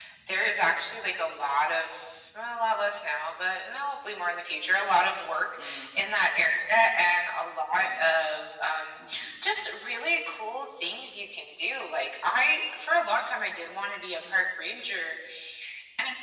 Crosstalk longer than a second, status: none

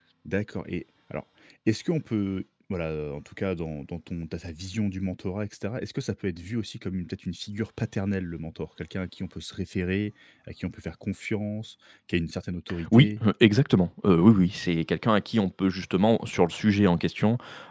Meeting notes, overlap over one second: none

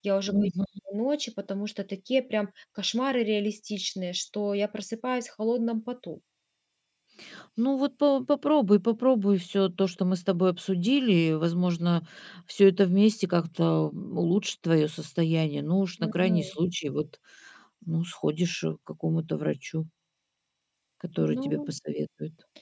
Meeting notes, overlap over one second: none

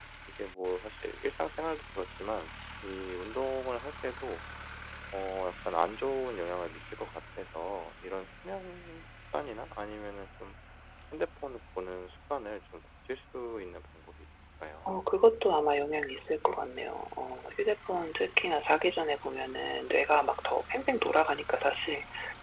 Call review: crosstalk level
none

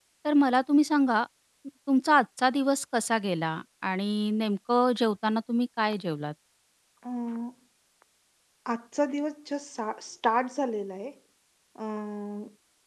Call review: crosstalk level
none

